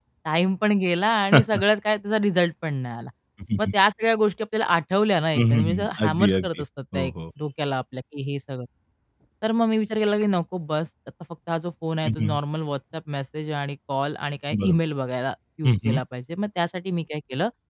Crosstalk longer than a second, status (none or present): present